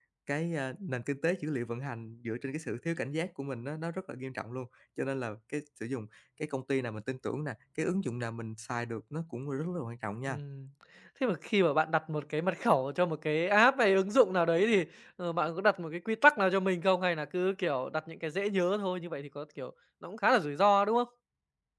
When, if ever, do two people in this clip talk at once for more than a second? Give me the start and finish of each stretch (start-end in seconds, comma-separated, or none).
none